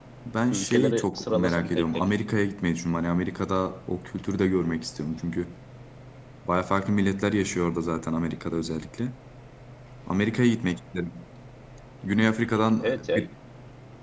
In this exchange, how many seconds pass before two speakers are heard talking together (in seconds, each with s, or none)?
0.5 s